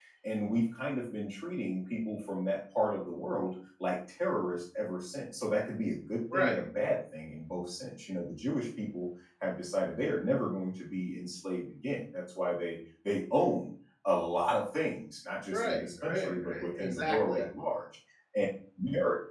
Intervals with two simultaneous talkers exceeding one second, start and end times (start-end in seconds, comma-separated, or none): 15.5-17.4